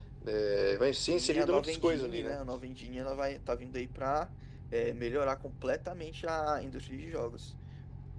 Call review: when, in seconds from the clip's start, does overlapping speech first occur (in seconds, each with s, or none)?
1.1 s